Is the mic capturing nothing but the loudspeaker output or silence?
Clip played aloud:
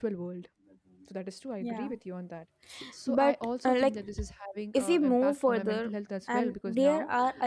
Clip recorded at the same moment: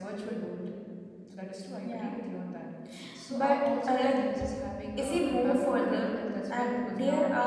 Yes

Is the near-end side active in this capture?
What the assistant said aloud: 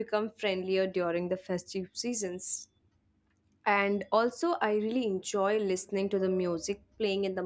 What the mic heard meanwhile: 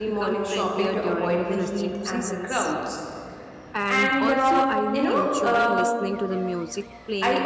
Yes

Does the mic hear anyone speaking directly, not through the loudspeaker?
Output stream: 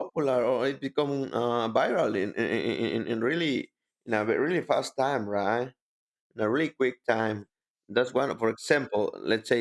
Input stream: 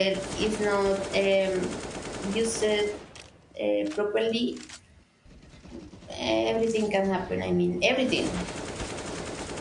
Yes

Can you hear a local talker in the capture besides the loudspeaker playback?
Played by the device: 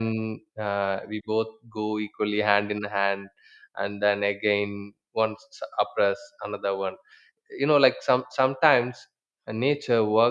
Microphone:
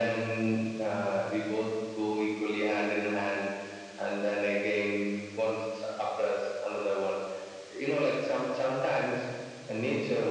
No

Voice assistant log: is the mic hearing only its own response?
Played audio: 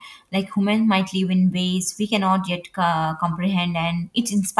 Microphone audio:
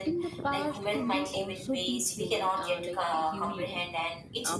No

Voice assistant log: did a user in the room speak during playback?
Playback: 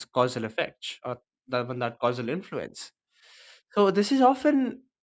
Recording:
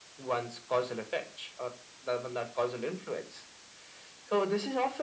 No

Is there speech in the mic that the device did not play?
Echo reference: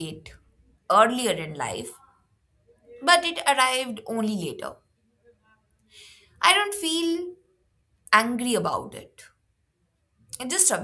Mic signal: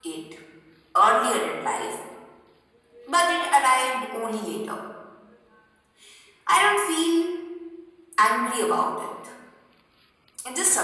No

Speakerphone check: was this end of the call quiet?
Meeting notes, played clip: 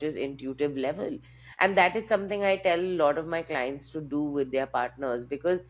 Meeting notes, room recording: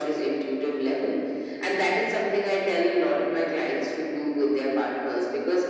Yes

